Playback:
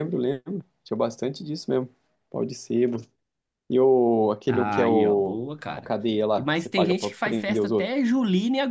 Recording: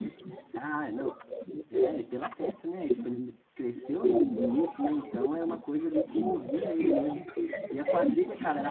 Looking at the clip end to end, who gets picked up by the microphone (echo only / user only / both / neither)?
both